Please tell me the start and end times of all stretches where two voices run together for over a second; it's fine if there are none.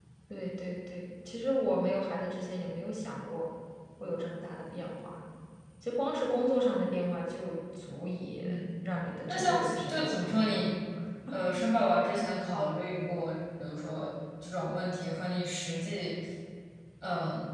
9.3-10.6

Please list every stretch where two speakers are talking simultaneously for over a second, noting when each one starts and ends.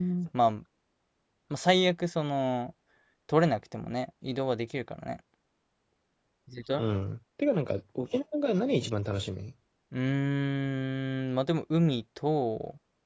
none

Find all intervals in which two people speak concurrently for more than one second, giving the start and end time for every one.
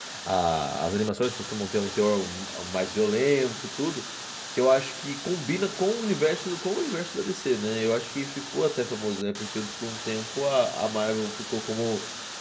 none

